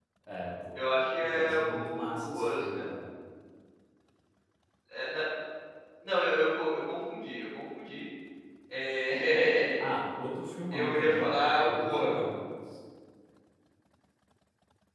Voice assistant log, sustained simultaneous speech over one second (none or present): present